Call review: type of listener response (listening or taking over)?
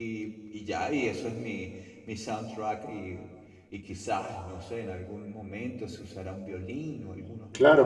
taking over